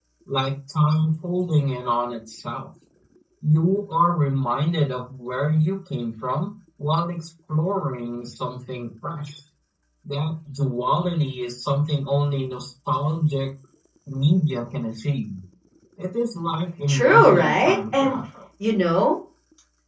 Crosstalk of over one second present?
Yes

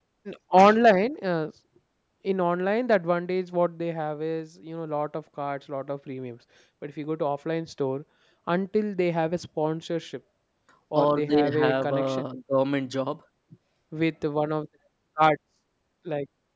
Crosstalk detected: Yes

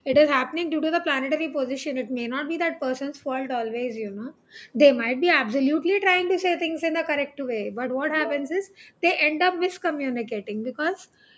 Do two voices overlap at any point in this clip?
No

